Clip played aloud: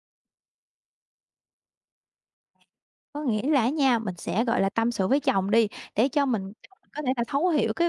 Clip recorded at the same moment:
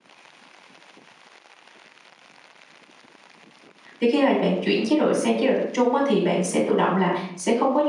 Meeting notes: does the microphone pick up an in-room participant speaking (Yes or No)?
Yes